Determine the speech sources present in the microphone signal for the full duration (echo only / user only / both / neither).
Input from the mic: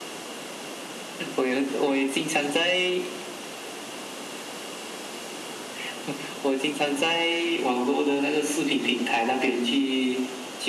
echo only